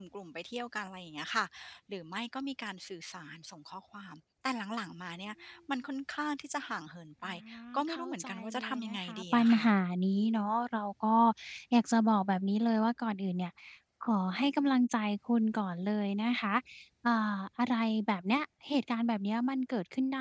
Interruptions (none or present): present